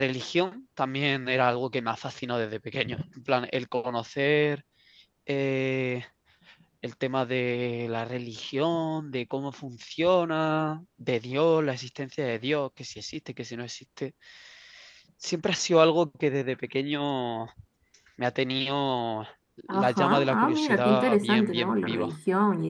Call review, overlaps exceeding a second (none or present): present